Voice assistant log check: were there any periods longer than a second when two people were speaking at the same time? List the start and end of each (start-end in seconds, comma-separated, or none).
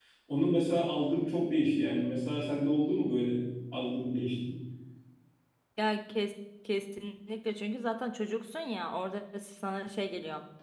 none